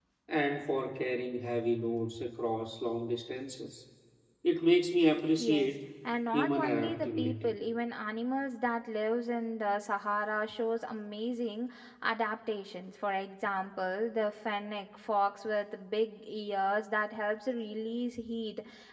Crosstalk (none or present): present